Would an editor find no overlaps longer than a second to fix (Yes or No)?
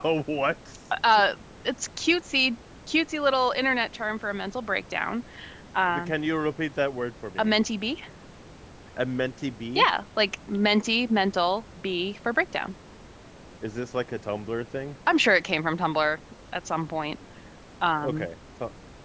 Yes